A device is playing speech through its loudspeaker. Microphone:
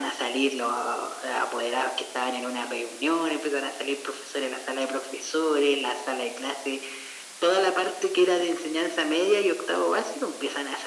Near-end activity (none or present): none